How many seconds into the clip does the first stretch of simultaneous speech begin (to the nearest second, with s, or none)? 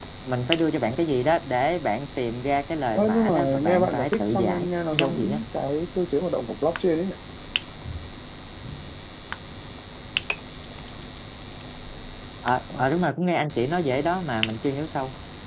3 s